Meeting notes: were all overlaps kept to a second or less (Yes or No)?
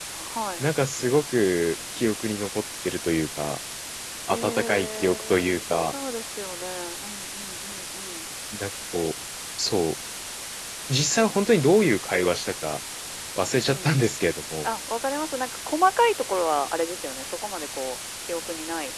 No